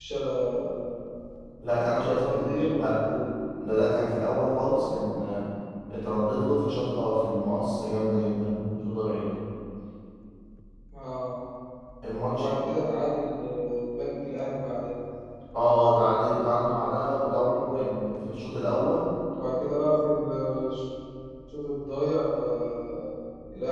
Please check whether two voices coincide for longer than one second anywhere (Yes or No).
Yes